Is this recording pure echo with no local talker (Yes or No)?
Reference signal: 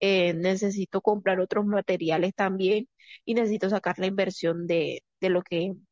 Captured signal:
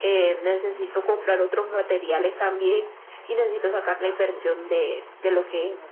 No